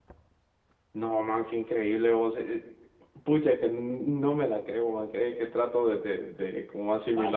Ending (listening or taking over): taking over